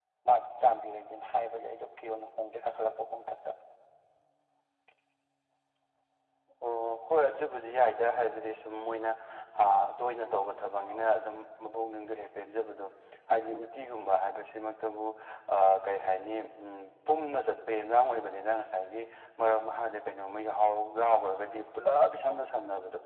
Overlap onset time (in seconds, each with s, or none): none